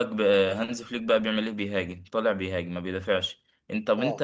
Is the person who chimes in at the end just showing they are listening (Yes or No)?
Yes